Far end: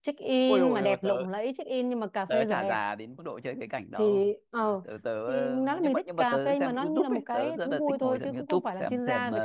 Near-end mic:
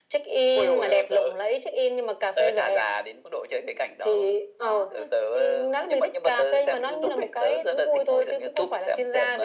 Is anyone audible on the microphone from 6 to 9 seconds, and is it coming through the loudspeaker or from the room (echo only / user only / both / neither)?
echo only